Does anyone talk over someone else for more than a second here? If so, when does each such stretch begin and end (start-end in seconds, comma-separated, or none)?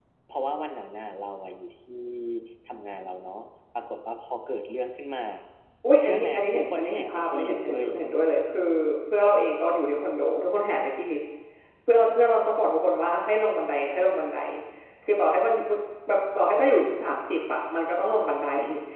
6.0-7.9